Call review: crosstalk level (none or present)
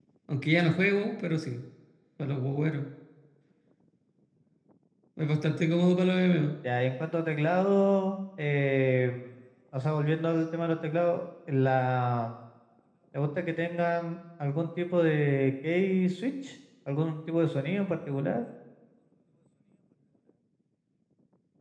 none